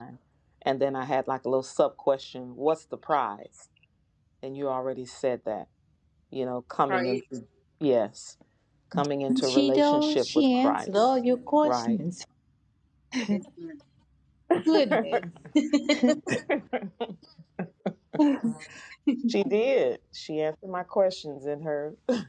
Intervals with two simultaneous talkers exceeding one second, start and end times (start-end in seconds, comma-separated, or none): 9.5-11.1